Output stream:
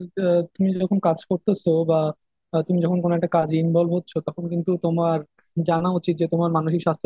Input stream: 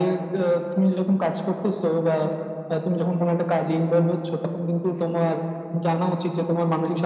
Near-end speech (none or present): none